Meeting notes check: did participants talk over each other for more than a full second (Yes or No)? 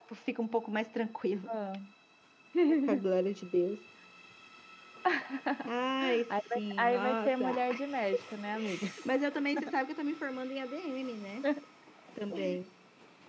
Yes